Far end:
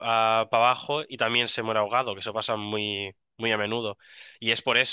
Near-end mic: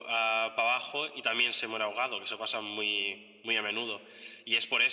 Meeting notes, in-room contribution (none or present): none